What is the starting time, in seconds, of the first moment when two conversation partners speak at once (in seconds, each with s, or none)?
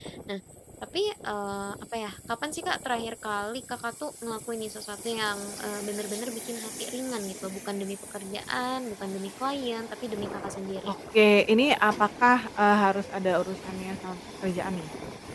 none